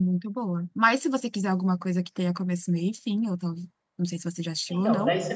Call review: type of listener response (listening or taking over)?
taking over